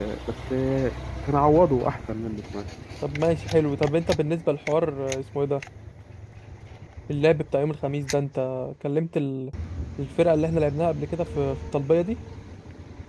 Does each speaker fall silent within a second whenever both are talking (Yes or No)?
Yes